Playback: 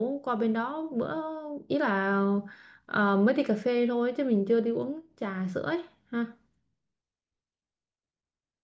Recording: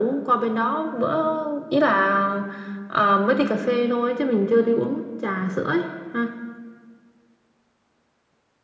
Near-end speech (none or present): none